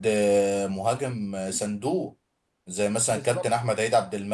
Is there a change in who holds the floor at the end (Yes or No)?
No